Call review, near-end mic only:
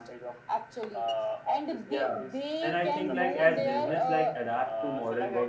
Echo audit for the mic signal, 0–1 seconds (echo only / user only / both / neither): echo only